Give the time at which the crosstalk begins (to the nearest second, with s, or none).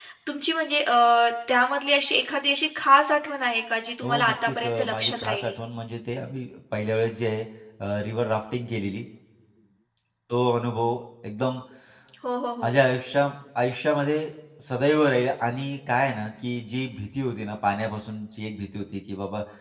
4 s